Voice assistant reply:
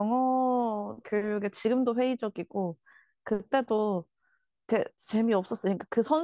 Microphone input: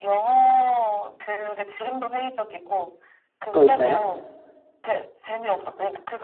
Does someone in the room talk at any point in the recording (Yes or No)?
Yes